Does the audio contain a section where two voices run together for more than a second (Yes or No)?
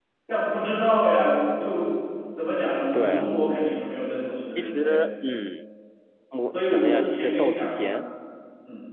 Yes